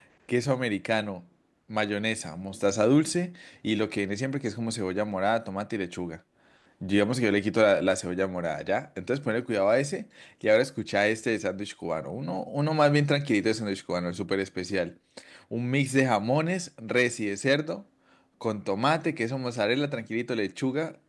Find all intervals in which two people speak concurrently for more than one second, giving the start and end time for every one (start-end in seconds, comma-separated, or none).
none